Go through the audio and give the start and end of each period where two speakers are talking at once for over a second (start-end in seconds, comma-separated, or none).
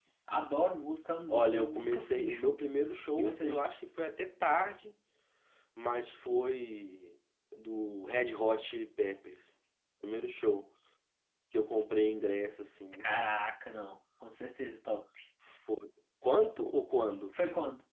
1.3-2.6